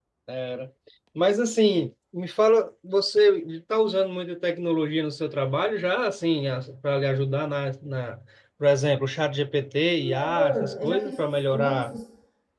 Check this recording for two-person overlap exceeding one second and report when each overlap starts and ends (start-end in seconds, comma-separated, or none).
10.0-12.0